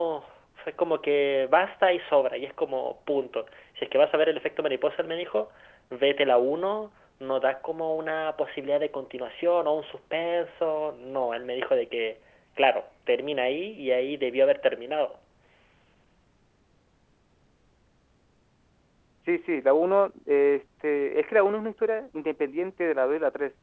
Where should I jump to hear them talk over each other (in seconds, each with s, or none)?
none